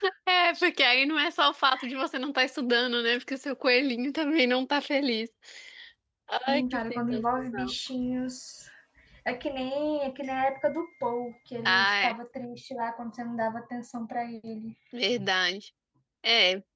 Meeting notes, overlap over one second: present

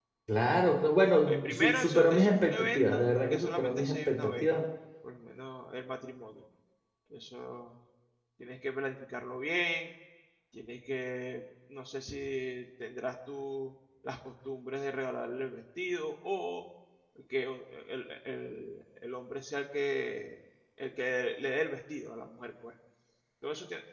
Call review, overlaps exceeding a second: present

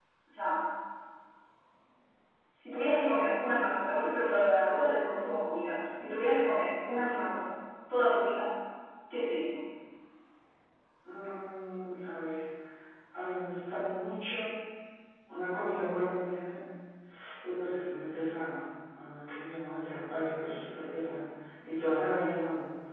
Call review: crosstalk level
none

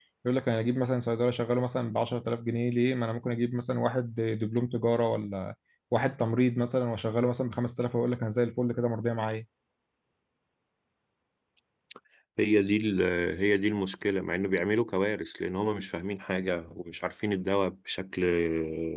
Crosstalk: none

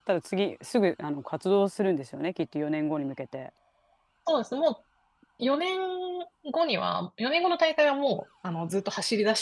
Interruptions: none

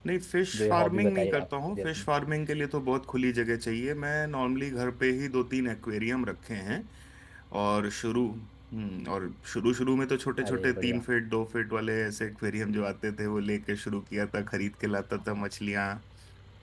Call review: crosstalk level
present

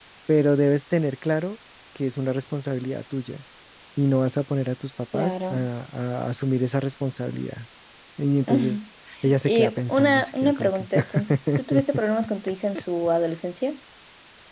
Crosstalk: present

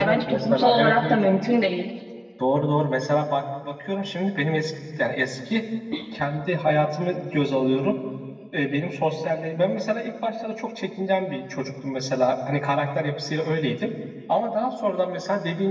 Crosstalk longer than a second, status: present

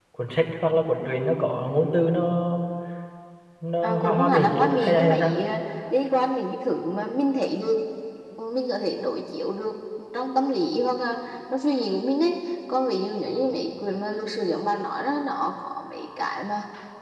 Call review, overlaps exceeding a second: present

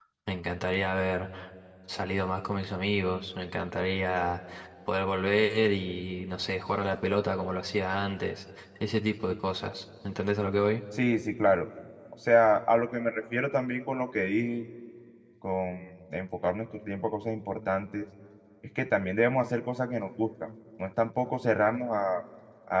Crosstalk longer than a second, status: none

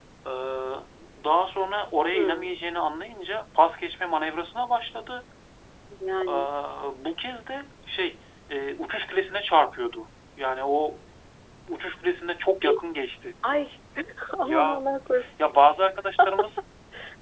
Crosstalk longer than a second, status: none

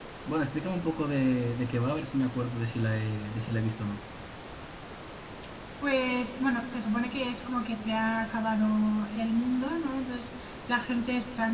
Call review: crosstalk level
none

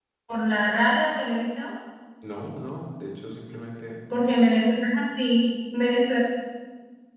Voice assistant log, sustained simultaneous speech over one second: none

